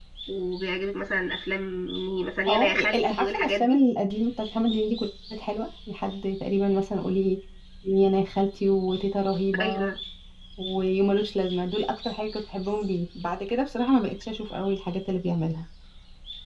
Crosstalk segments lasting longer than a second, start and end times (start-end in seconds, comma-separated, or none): 2.5-3.8